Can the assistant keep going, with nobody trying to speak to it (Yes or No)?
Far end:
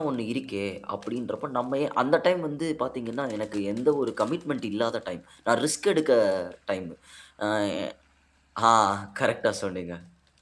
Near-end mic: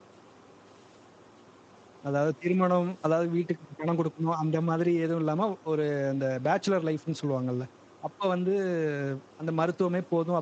No